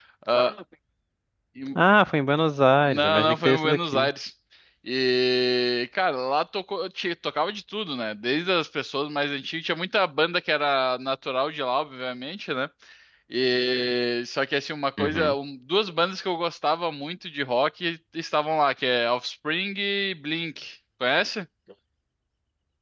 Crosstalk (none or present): present